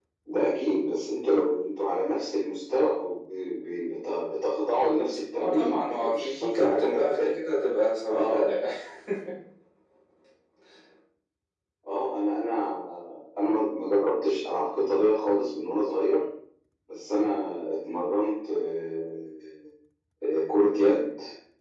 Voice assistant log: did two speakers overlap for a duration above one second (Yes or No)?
Yes